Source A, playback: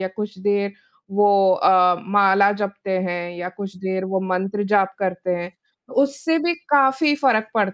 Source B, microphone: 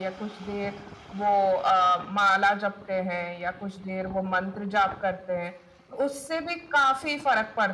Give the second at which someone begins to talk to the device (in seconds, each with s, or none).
none